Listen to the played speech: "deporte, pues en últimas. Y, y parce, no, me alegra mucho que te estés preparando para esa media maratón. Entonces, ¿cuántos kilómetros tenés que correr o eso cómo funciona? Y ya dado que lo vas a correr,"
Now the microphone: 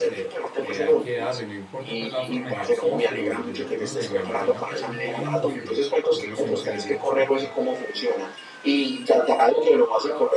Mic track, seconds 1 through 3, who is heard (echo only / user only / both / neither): both